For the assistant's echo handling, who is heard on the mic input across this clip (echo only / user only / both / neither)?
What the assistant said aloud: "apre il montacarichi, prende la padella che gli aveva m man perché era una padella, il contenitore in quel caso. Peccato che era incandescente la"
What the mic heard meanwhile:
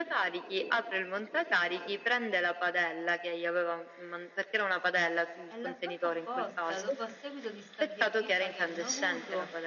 both